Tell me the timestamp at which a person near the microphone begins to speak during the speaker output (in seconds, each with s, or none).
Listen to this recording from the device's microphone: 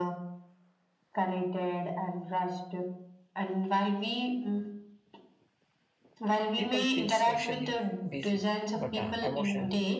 6.6 s